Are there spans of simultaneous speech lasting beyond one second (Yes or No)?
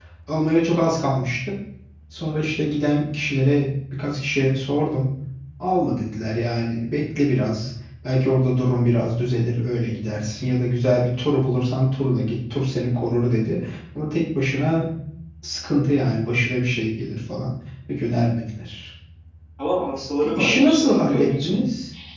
Yes